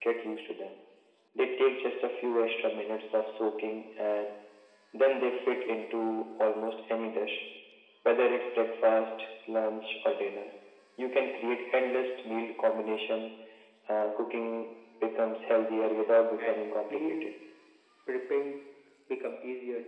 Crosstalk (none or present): present